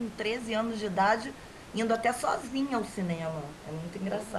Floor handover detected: No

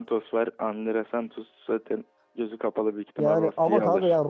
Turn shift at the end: Yes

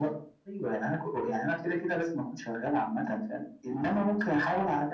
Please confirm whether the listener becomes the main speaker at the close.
No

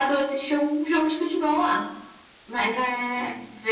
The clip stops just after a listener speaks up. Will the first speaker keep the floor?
Yes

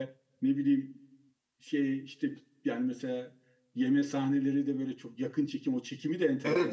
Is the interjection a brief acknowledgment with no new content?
No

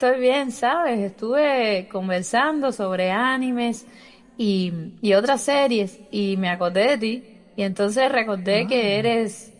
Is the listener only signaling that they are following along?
Yes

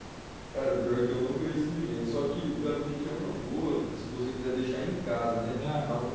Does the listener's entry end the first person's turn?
No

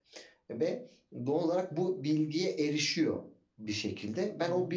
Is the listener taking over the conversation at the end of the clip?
No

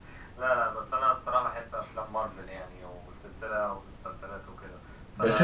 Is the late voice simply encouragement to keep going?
No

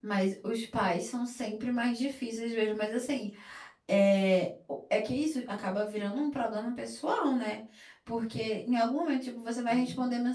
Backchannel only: Yes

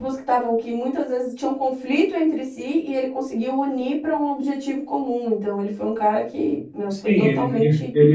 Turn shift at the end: Yes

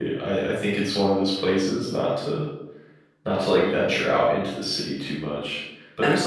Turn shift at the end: No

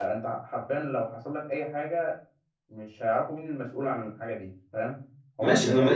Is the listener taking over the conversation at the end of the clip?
Yes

